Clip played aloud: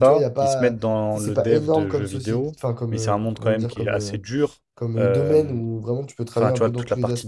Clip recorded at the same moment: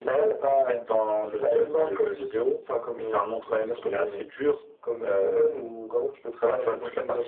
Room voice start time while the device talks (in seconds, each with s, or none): none